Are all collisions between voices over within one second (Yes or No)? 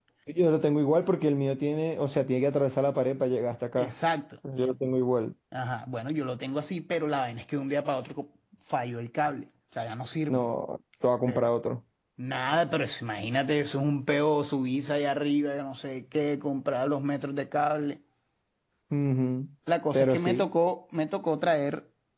Yes